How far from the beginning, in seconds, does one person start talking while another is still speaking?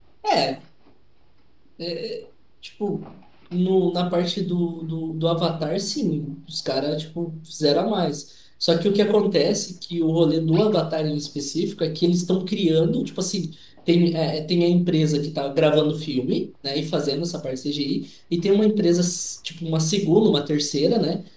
none

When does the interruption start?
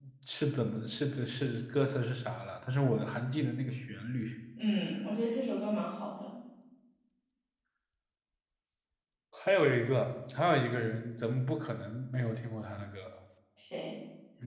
none

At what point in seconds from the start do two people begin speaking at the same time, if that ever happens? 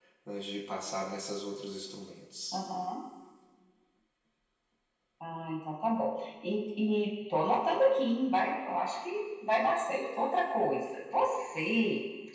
none

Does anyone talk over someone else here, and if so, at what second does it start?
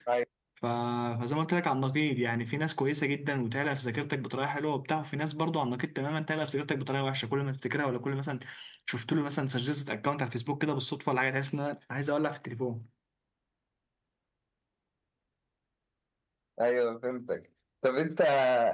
none

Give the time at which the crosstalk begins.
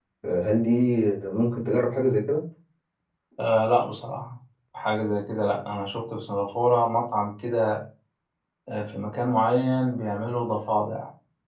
none

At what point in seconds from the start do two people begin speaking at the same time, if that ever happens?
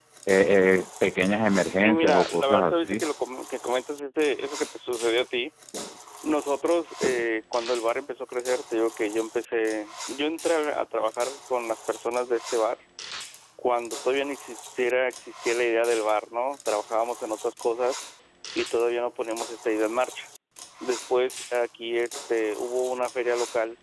2 s

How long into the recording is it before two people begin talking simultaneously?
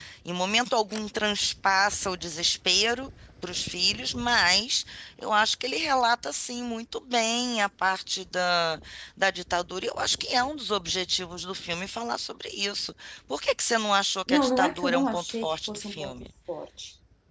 14 s

